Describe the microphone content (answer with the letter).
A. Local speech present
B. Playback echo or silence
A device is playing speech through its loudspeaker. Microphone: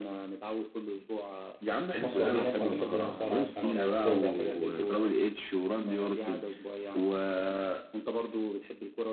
A